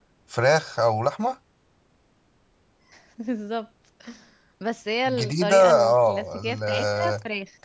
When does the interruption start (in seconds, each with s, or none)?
5.1 s